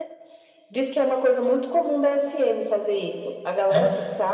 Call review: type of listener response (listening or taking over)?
listening